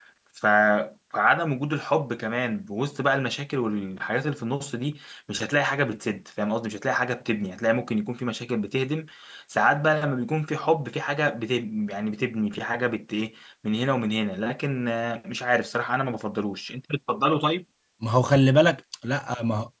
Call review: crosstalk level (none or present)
none